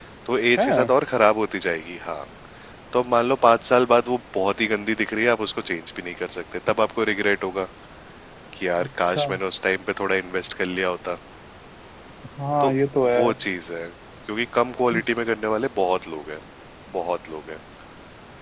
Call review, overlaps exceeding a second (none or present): none